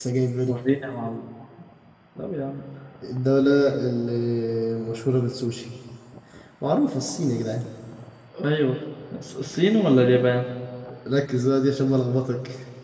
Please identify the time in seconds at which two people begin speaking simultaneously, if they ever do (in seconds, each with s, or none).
none